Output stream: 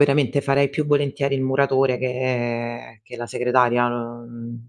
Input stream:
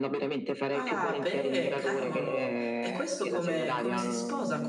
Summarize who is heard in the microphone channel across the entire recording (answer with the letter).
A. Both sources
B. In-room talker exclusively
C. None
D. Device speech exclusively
A